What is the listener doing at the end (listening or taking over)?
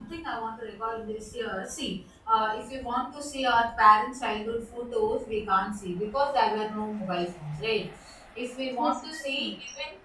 listening